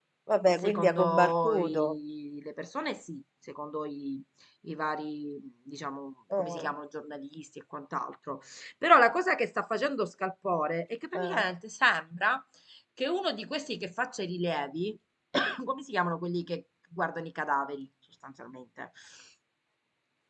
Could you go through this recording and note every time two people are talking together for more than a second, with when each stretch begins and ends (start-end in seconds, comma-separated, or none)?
0.6-2.0